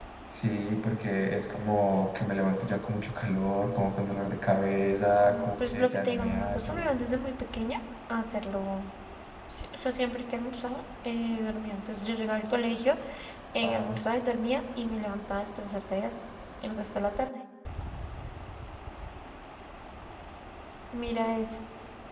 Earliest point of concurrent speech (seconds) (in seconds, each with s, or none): 5.2 s